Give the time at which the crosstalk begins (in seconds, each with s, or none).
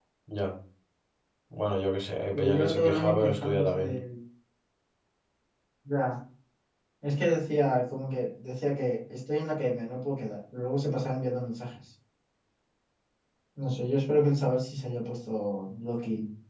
2.3 s